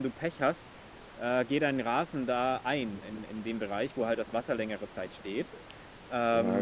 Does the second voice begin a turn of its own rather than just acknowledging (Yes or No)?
Yes